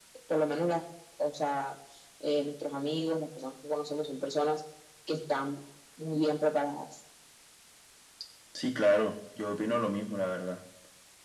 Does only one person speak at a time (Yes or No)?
Yes